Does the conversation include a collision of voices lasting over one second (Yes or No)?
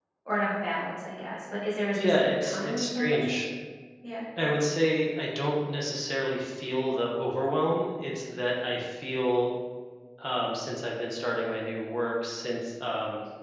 Yes